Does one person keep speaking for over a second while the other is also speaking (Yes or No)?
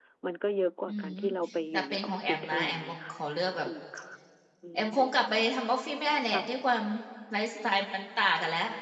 Yes